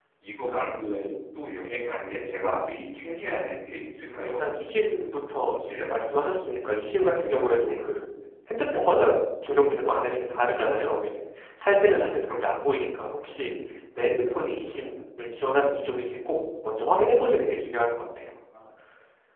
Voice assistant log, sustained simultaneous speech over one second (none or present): none